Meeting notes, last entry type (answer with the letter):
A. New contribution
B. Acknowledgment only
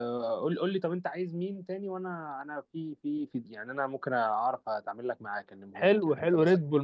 A